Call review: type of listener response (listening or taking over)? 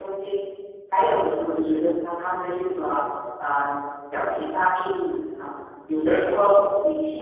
listening